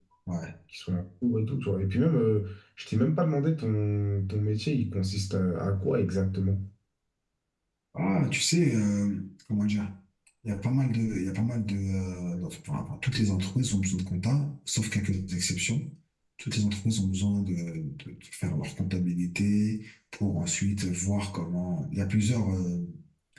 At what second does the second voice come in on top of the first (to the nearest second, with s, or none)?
none